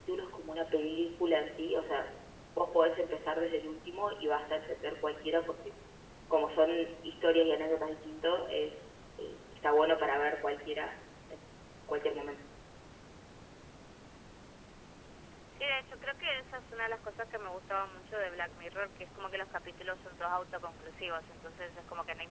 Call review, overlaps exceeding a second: none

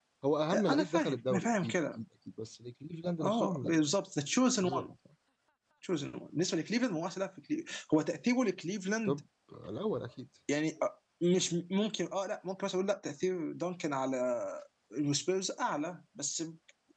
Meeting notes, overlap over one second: present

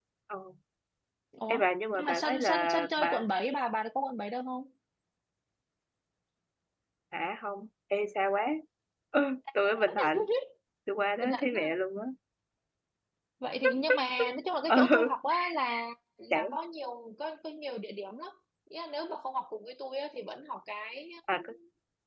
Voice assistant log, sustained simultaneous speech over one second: present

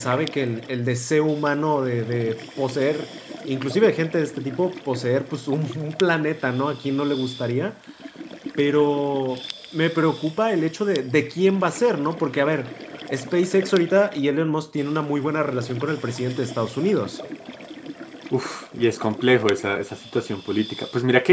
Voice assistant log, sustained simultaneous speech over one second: none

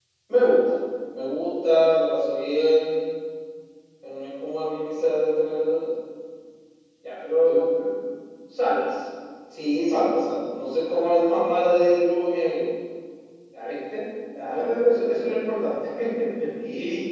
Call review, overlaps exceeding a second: none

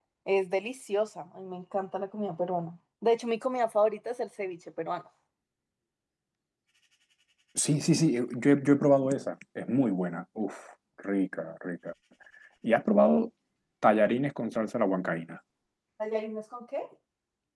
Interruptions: none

